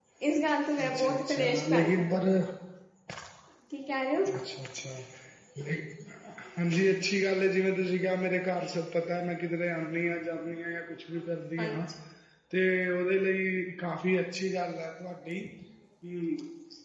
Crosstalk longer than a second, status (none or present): present